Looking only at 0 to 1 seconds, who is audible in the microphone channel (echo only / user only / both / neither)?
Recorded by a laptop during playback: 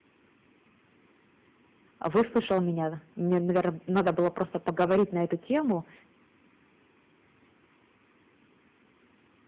neither